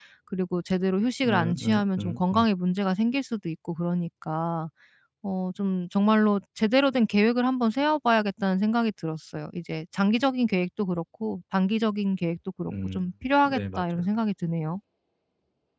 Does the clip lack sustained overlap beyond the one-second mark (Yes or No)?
No